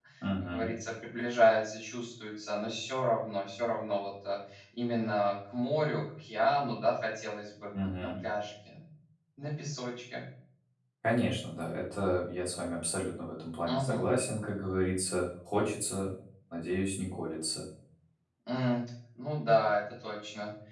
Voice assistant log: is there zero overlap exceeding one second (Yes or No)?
Yes